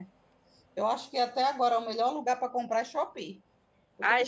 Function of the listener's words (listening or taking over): listening